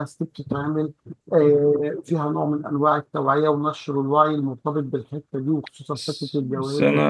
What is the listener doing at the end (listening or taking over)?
taking over